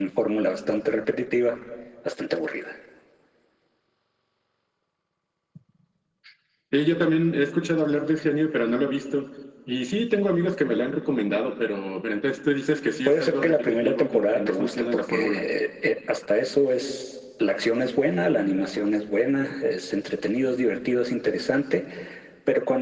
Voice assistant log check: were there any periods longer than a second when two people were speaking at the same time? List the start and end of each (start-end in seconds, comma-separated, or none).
13.1-15.4